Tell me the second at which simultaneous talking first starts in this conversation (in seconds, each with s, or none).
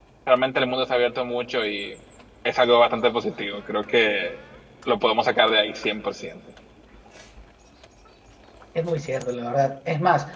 none